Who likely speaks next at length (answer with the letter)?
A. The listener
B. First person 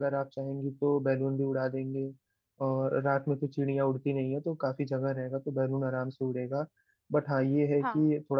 B